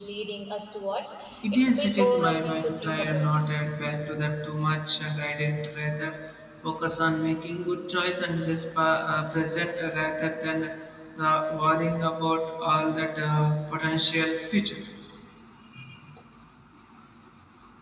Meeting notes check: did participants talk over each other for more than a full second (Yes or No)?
Yes